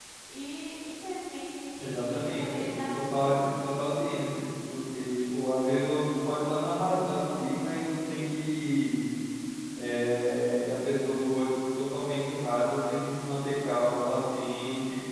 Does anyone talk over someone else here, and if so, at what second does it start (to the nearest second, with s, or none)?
2 s